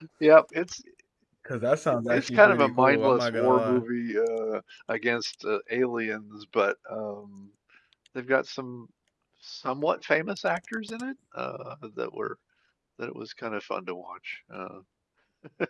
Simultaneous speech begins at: 2.1 s

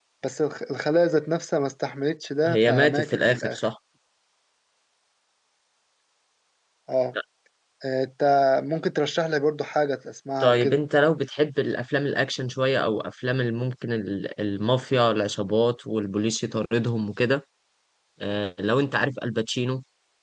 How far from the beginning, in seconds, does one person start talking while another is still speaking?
2.5 s

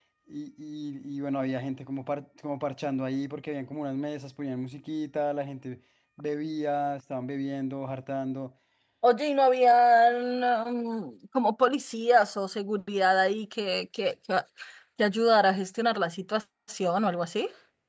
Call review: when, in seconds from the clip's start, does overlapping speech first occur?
none

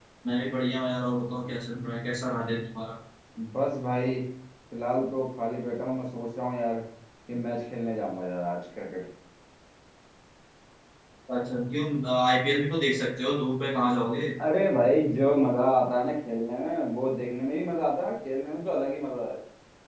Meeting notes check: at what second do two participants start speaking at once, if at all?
none

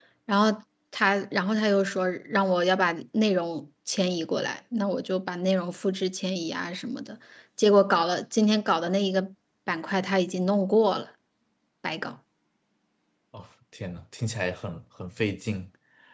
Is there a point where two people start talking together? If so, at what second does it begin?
none

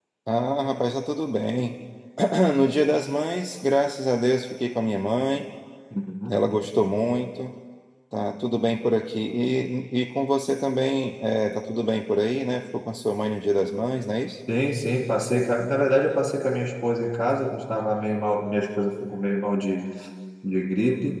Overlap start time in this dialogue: none

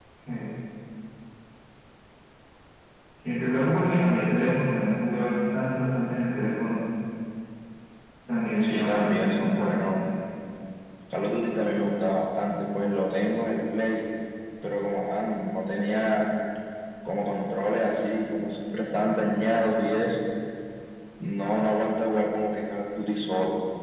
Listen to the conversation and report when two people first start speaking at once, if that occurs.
8.6 s

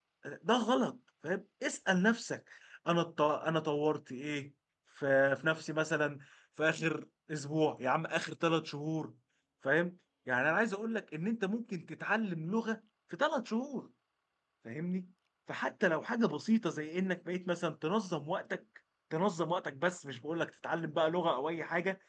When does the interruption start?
none

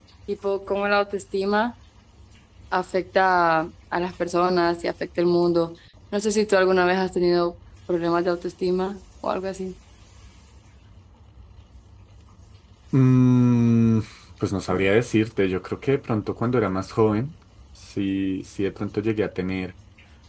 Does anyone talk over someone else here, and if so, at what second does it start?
none

